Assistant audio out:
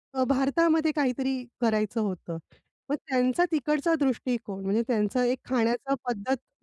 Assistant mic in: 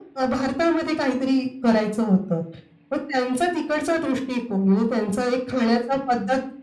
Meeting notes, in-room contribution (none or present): none